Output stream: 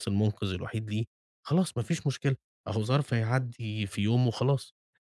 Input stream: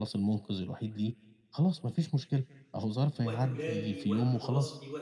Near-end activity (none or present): present